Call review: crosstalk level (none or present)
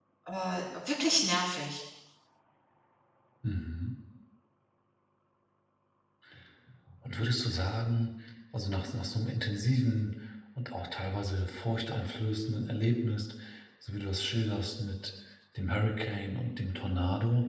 none